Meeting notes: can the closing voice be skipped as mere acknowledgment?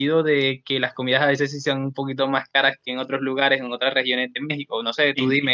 No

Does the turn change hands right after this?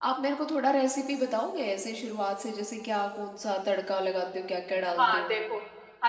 Yes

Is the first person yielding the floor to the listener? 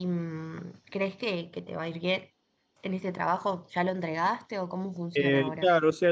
Yes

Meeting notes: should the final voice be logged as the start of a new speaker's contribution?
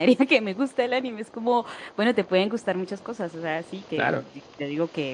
No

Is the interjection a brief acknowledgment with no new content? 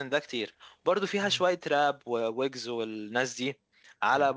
Yes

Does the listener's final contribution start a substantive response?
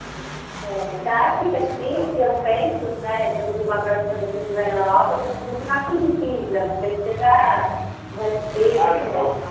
Yes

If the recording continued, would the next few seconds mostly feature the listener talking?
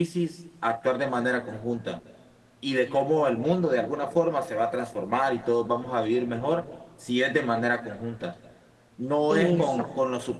No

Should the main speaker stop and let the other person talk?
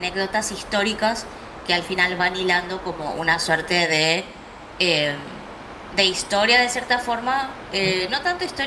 No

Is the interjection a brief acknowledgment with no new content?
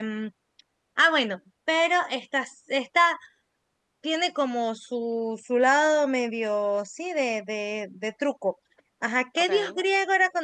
Yes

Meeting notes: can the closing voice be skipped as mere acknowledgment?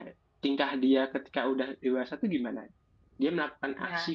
Yes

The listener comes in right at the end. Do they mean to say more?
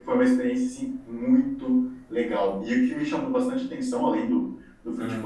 No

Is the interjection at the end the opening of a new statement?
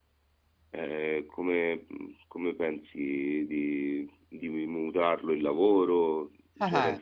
Yes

